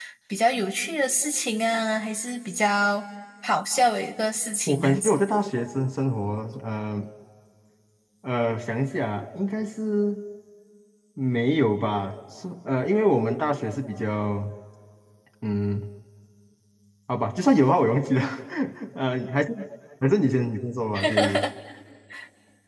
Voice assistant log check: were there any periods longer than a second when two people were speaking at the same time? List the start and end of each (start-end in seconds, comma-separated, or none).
none